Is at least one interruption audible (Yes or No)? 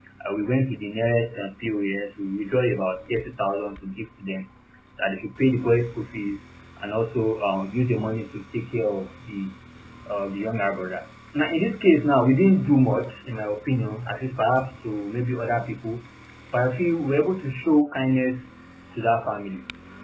No